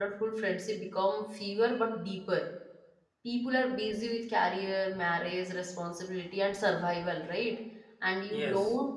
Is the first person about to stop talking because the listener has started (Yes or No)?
No